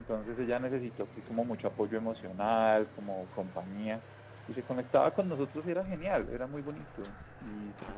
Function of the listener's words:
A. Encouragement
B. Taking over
B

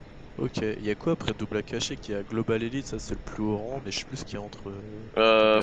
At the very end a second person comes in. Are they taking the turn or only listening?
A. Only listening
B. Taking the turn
B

